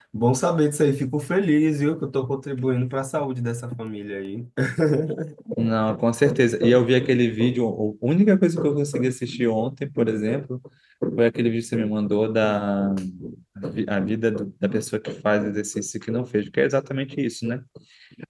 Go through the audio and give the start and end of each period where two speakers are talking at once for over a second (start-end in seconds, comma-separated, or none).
none